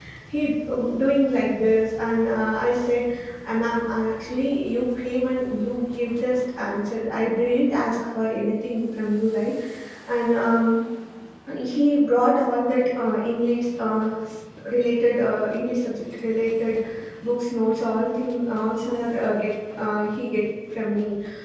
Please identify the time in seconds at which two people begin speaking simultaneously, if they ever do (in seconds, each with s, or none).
none